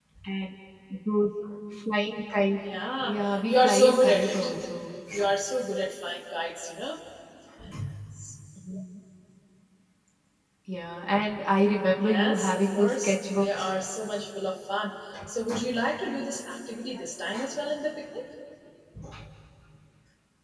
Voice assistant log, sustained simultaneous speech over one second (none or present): present